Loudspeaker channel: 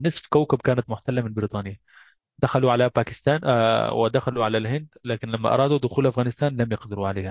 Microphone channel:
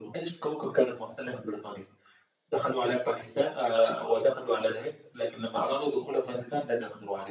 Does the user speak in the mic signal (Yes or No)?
No